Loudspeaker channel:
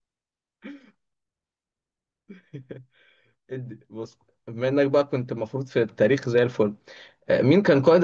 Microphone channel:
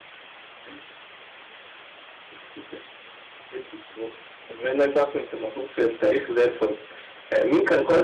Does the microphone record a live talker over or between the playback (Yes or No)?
No